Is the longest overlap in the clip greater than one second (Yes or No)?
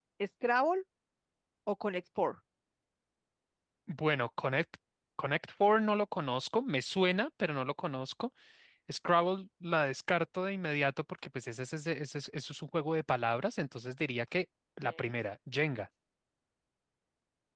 No